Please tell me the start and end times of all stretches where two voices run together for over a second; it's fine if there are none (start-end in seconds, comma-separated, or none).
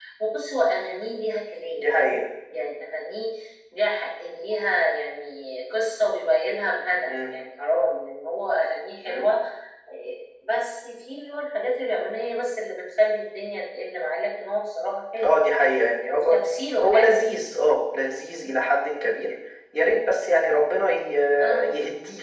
none